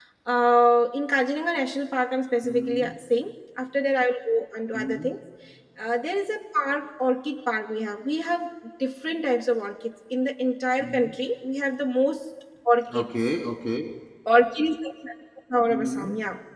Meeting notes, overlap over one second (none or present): none